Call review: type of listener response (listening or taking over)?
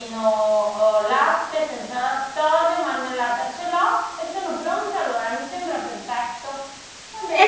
taking over